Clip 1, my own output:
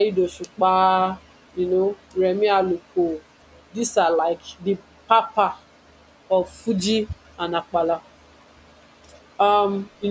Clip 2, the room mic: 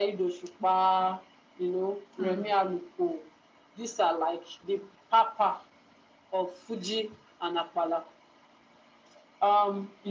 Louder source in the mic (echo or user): echo